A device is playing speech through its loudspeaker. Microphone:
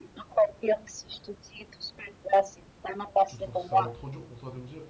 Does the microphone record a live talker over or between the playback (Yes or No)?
Yes